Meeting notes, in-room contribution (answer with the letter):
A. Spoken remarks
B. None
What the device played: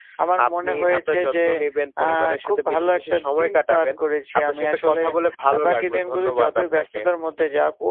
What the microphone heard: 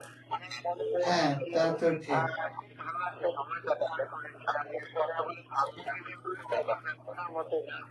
A